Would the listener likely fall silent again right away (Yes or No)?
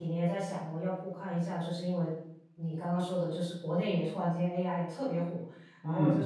Yes